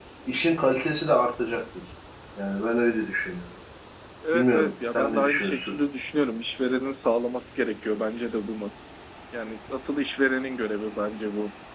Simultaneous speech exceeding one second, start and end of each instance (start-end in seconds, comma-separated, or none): 4.3-5.8